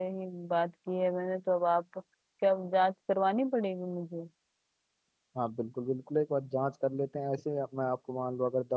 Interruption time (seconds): none

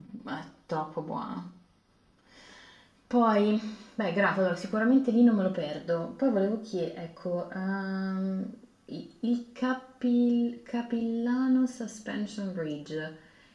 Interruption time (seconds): none

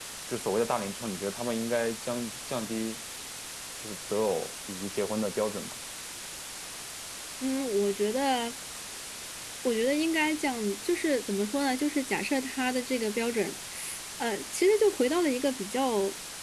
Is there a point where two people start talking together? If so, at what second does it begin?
none

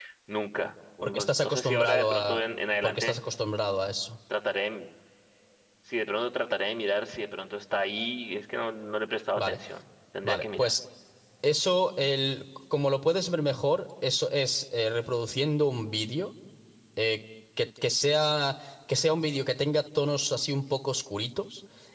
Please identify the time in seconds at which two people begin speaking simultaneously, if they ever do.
1.0 s

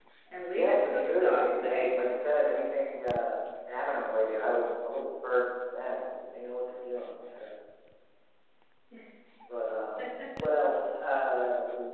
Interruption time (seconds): 0.5 s

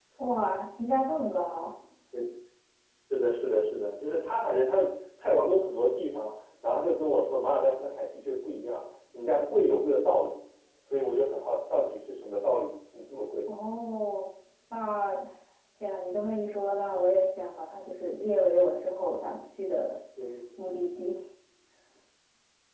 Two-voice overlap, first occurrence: none

